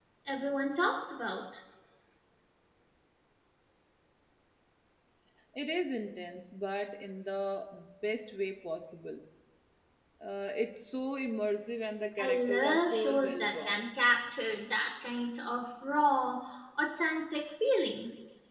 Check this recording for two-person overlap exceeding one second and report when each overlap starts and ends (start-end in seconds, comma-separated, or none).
12.2-13.8